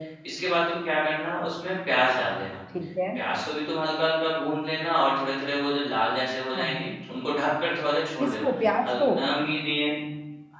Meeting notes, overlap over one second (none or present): none